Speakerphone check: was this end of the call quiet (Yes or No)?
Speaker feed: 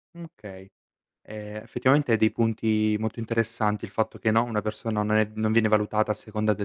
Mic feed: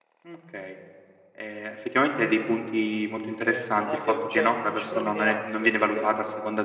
No